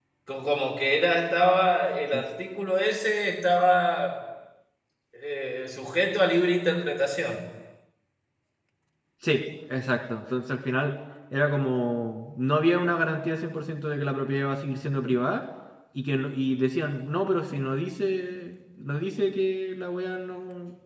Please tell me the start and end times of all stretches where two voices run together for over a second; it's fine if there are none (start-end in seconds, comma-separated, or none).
none